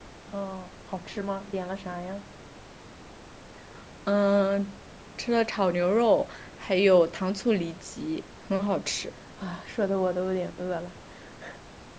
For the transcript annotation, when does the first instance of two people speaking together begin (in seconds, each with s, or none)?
none